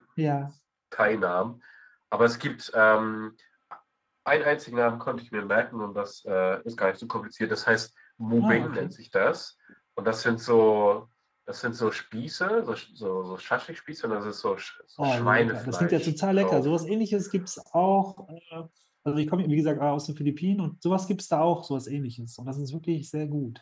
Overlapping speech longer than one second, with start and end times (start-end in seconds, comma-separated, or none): 15.0-16.7